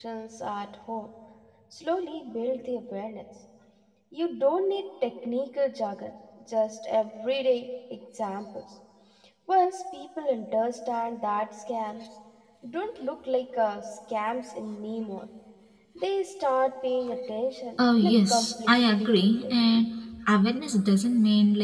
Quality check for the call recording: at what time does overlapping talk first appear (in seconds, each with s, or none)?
17.8 s